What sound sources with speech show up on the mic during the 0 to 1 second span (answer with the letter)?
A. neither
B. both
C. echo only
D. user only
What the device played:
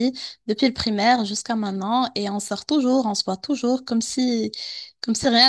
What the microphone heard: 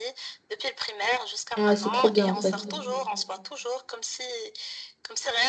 C